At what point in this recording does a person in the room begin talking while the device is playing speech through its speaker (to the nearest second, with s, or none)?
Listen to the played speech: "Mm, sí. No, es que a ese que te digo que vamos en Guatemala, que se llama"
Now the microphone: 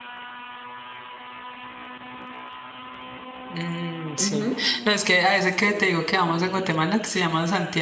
4 s